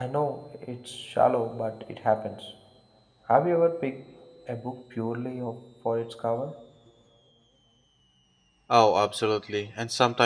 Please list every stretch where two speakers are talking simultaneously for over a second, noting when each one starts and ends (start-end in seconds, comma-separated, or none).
none